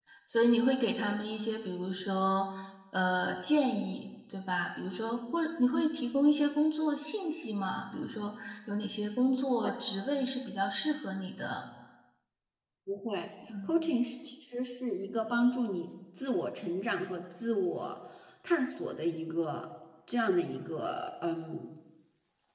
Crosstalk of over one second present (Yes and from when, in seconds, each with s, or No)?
No